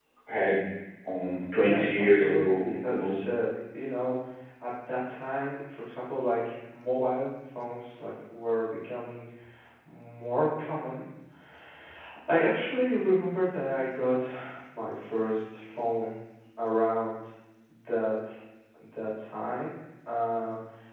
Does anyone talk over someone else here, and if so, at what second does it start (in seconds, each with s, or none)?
1.6 s